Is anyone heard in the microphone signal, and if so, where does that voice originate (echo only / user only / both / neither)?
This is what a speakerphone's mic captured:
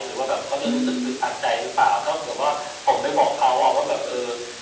both